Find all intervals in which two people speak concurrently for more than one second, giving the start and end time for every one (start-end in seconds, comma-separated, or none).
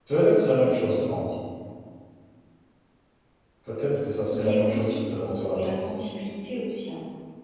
4.4-5.8